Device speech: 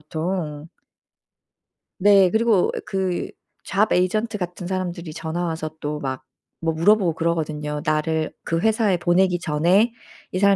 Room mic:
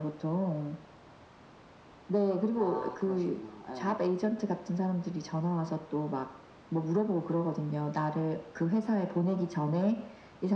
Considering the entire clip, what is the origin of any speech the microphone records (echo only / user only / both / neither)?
both